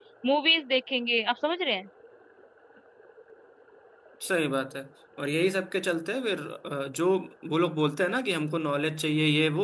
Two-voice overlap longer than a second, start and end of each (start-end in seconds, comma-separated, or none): none